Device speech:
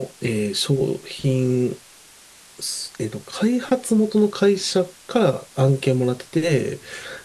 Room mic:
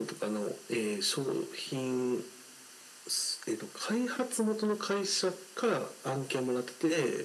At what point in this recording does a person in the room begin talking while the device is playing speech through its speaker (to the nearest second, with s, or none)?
none